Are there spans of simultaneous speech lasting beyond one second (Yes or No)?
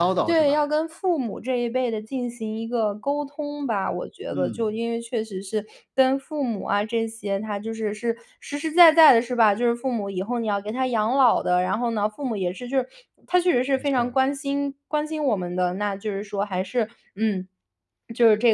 No